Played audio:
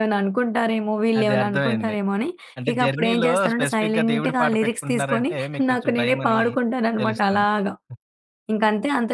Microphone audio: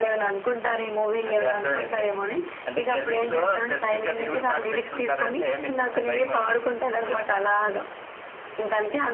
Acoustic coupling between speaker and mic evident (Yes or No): Yes